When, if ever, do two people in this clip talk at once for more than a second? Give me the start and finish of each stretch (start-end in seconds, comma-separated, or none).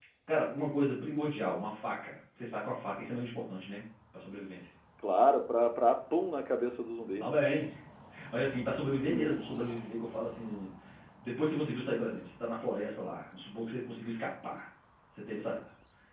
none